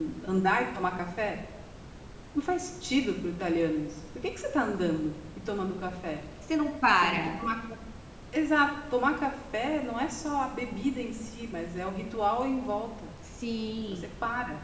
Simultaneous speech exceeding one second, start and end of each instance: none

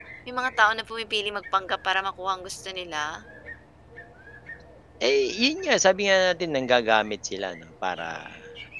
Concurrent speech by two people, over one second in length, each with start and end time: none

